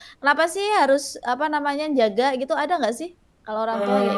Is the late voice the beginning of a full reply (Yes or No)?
Yes